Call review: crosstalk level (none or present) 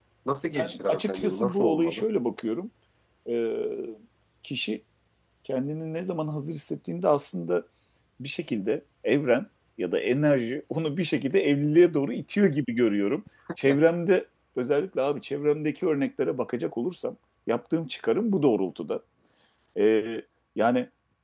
present